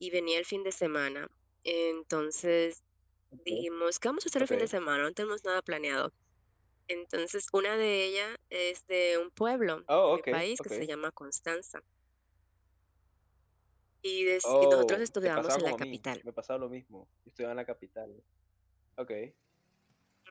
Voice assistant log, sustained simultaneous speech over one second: present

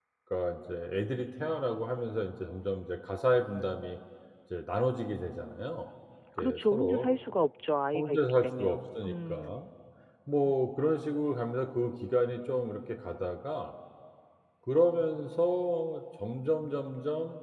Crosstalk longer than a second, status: present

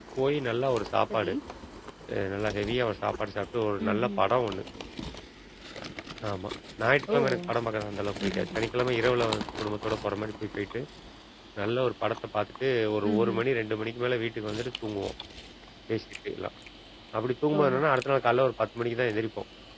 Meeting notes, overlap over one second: none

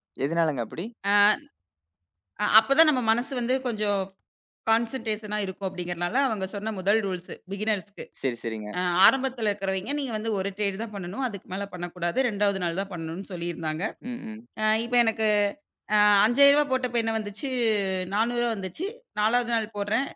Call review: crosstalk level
none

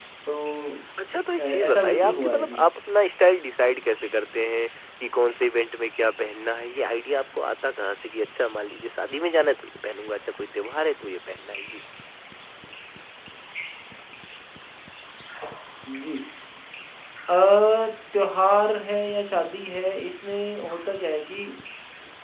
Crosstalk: present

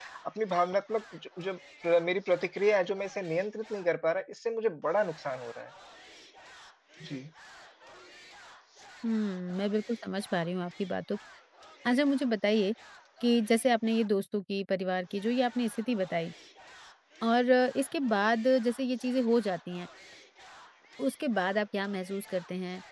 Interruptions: none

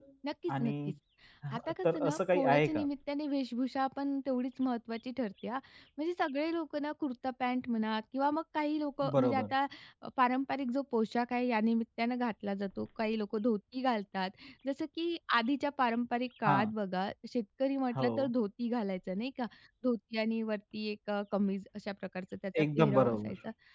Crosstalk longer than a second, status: present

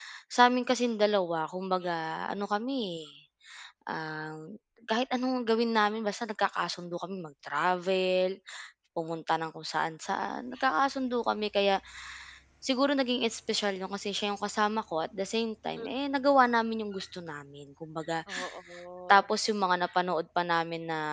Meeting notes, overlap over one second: none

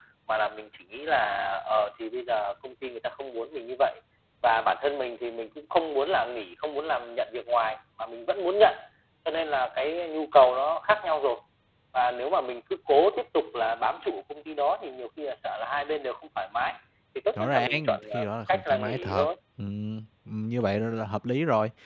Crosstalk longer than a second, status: present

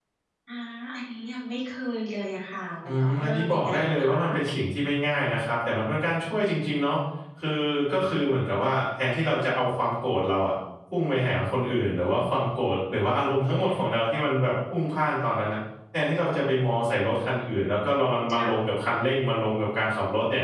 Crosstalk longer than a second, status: present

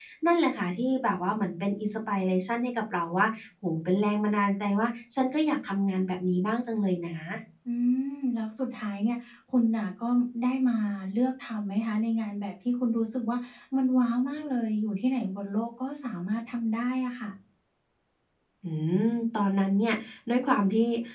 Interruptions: none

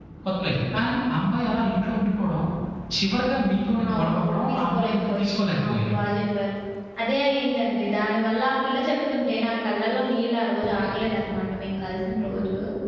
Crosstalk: present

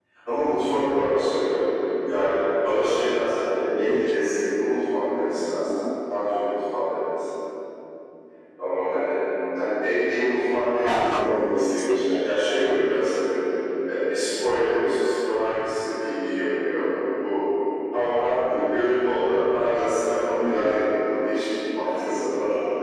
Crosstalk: present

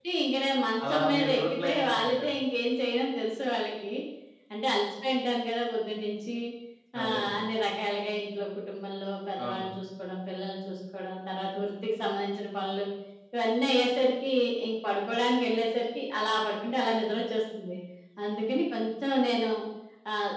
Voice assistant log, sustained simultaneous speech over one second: present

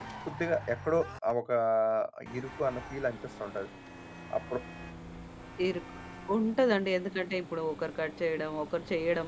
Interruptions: none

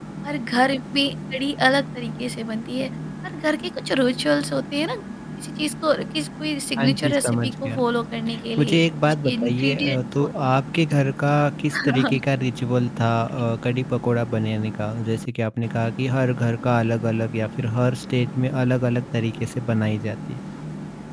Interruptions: present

